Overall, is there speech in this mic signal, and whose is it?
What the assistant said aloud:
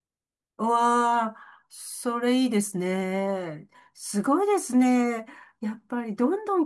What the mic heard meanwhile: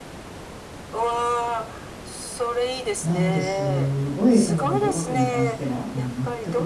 both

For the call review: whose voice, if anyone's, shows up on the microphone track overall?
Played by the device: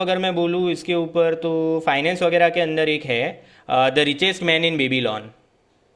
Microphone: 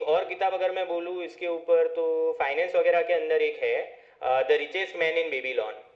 echo only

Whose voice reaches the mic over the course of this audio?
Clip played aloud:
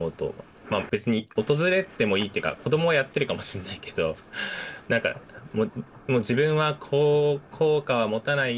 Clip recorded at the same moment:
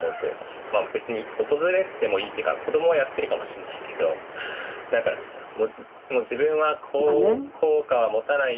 both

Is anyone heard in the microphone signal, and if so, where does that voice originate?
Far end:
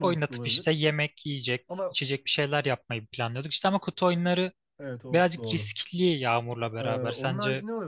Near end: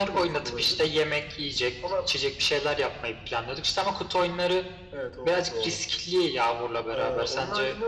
echo only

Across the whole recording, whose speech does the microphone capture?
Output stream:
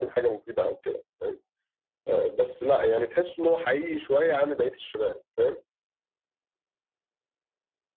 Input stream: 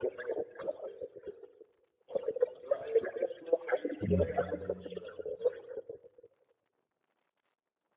both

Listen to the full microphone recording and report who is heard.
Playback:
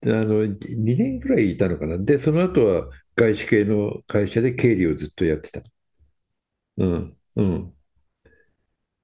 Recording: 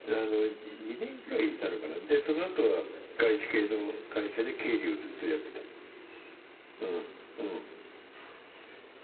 echo only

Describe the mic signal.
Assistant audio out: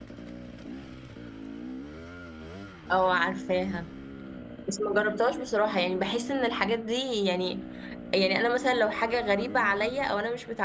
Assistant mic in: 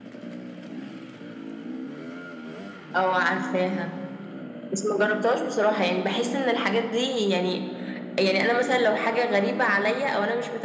echo only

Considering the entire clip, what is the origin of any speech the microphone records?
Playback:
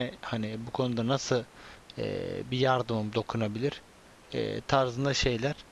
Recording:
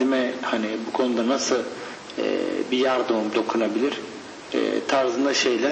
echo only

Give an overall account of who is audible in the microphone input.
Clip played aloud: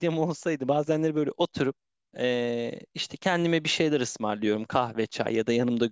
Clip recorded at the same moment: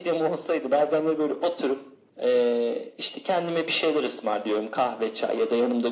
echo only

